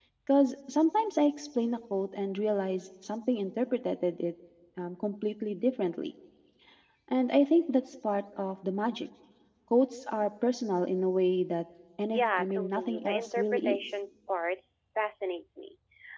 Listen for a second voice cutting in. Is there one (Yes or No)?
Yes